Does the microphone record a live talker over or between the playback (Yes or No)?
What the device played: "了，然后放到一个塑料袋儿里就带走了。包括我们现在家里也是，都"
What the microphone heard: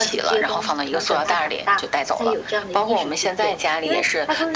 Yes